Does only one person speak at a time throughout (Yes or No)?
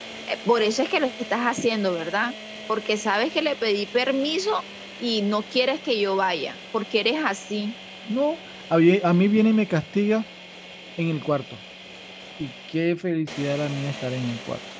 Yes